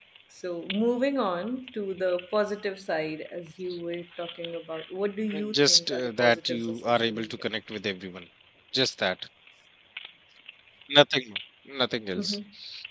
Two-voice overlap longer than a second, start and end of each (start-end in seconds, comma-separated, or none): 5.3-7.3